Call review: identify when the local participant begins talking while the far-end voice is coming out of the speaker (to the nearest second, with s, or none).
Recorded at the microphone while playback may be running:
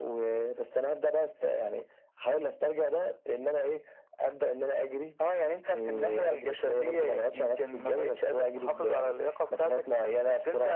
none